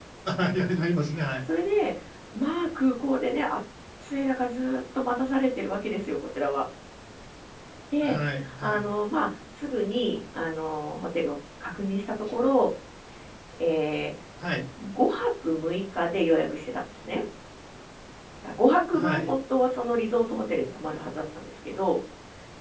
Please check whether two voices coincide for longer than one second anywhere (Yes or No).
No